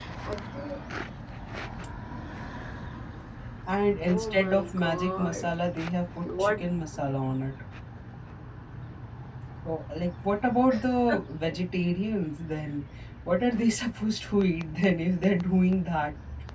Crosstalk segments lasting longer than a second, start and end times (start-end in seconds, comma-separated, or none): 4.1-5.5